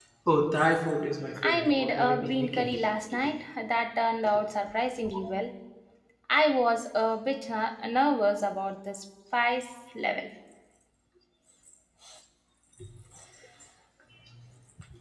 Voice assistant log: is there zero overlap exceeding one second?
No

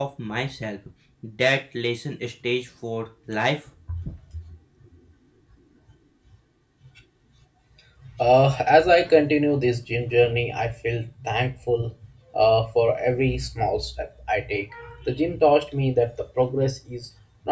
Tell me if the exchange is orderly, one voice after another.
Yes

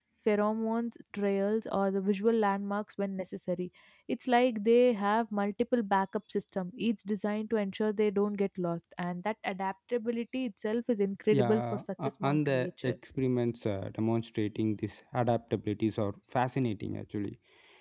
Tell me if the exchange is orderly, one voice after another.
No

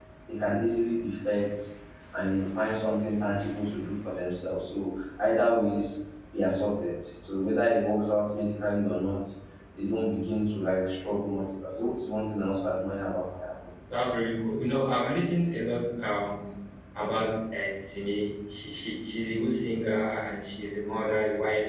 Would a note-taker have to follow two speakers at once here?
No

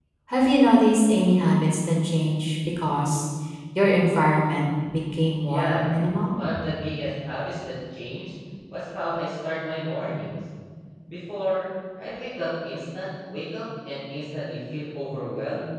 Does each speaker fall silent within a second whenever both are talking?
Yes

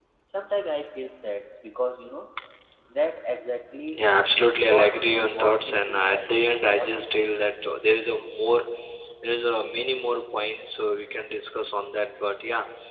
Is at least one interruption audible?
Yes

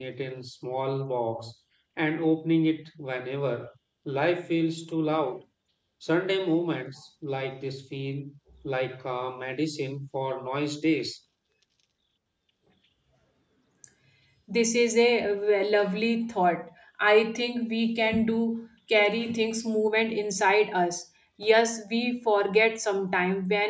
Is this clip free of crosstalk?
Yes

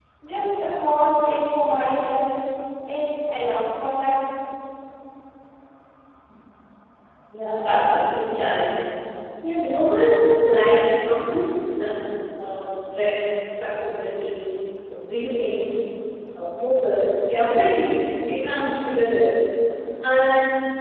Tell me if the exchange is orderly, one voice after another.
Yes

